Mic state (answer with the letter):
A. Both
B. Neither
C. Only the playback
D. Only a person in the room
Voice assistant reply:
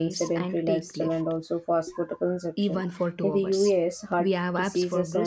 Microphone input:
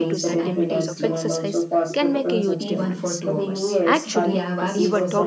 A